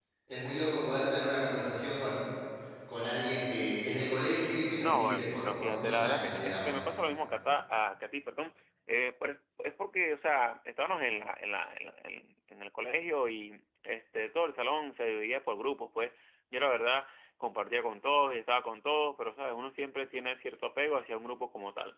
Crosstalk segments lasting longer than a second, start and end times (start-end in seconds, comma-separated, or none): 4.8-6.8